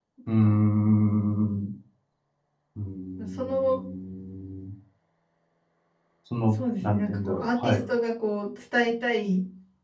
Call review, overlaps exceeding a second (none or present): present